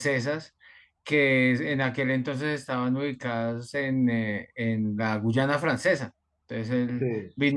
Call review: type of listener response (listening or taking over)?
listening